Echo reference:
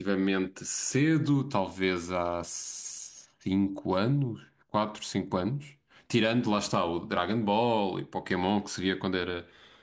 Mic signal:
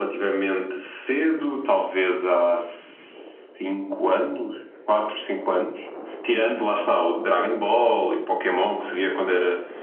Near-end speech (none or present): none